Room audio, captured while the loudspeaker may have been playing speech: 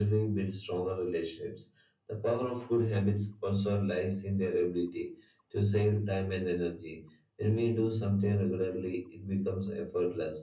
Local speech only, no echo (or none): none